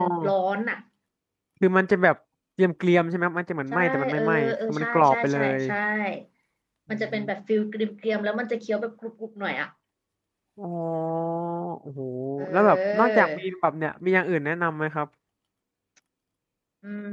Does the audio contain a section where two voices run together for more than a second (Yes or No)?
Yes